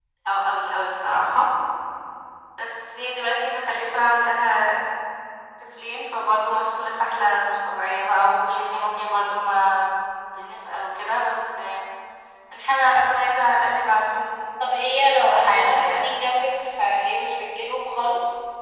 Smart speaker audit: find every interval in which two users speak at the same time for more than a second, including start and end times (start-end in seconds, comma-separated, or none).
14.9-16.1